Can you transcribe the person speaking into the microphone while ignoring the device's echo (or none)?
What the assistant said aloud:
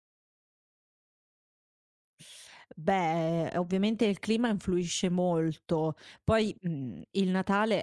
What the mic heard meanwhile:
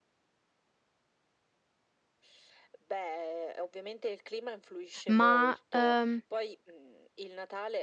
Ma, ehm,